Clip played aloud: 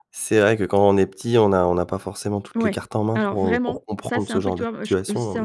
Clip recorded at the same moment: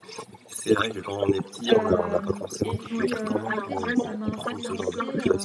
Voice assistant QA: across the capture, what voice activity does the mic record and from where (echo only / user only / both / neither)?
both